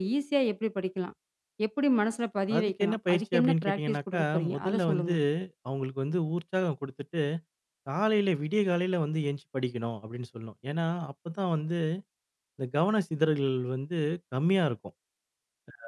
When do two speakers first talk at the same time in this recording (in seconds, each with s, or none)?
2.6 s